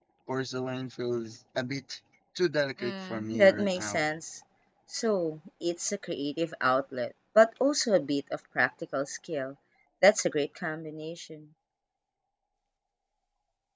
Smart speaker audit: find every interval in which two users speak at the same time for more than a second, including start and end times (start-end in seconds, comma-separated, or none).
2.8-4.1